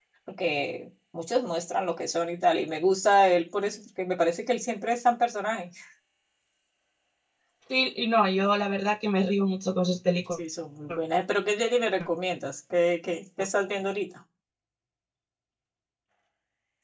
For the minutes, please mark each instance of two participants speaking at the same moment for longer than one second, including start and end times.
none

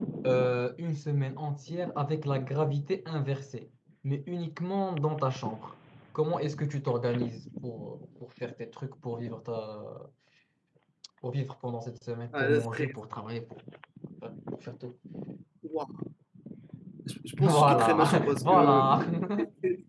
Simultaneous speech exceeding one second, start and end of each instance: 17.4-18.9

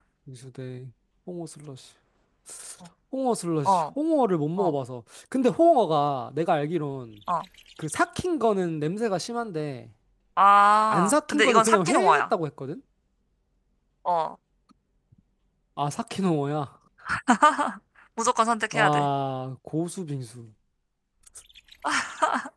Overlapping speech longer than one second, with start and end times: 10.9-12.2

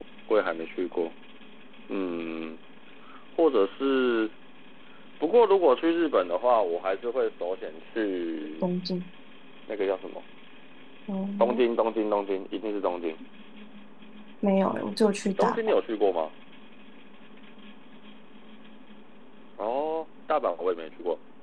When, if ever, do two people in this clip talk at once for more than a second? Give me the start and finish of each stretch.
none

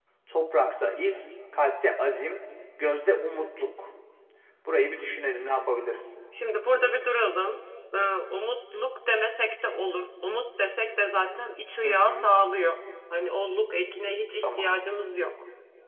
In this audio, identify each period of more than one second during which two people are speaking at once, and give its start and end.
none

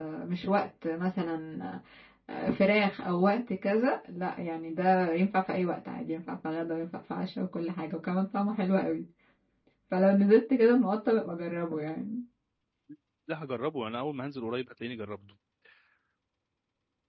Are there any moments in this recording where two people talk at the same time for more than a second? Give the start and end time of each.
none

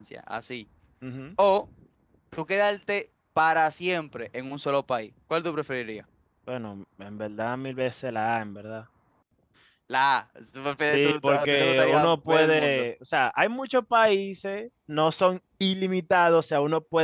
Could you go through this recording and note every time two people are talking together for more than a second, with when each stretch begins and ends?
10.8-12.8

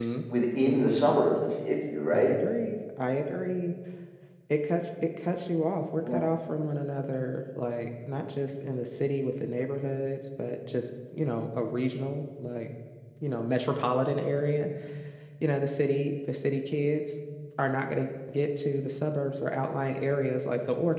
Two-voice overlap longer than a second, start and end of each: none

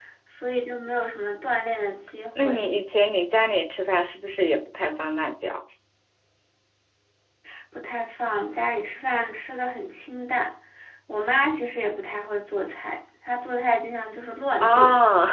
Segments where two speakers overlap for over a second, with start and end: none

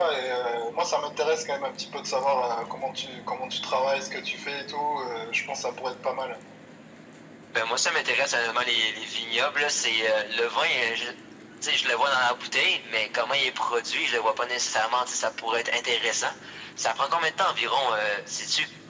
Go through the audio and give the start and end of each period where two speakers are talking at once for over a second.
none

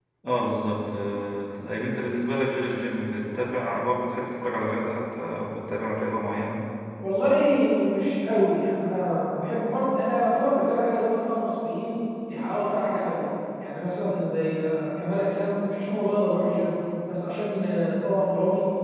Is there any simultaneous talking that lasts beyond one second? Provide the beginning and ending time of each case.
none

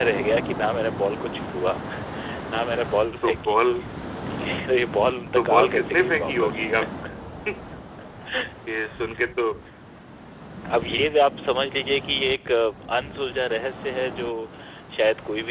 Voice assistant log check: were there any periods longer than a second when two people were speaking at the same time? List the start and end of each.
5.3-6.7

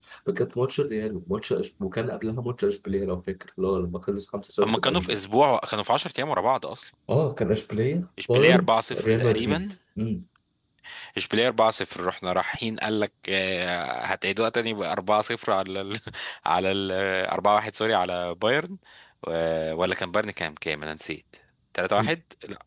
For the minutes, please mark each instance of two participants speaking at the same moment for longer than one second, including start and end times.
8.3-9.6

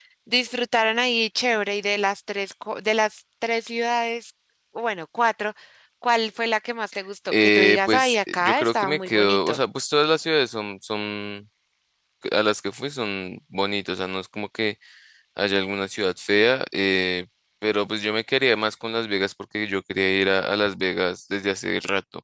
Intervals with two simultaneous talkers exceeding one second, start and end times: 7.4-9.6

